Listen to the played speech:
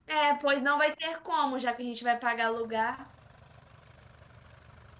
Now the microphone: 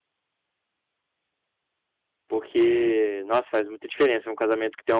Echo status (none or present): none